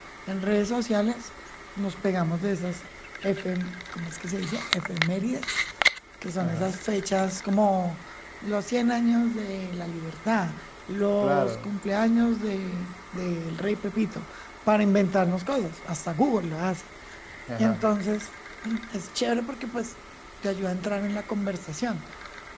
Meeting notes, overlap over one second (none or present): none